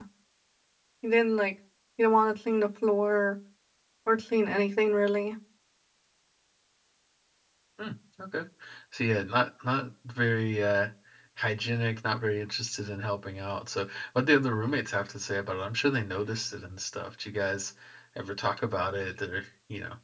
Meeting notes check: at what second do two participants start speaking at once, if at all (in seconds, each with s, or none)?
none